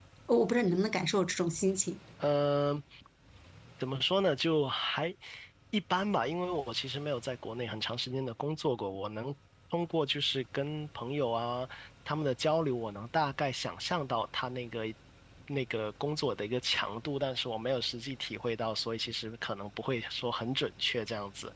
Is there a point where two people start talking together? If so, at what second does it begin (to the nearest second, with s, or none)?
none